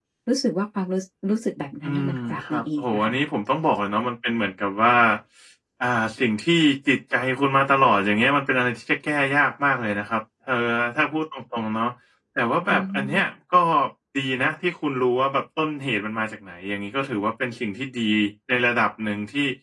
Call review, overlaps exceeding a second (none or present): present